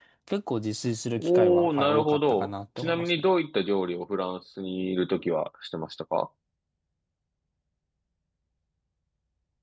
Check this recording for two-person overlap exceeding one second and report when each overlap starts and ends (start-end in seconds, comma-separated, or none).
1.2-3.2